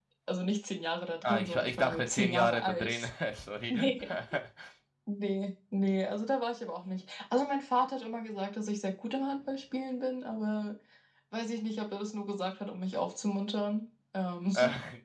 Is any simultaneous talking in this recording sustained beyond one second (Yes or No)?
Yes